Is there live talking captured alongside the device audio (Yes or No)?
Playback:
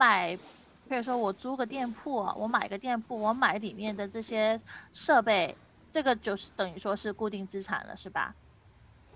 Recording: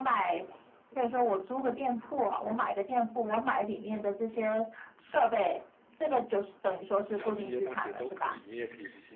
Yes